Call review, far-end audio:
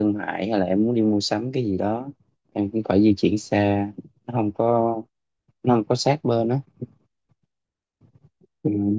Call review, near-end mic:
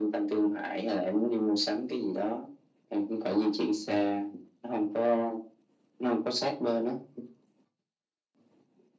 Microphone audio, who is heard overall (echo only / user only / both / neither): echo only